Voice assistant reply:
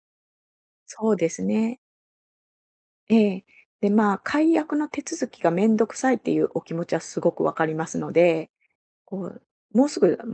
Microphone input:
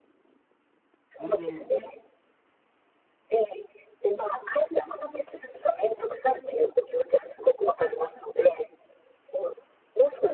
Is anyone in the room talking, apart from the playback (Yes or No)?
Yes